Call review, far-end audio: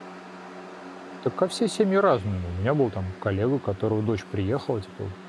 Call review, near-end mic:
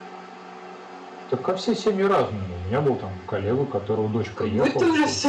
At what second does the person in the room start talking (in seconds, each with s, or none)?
4.4 s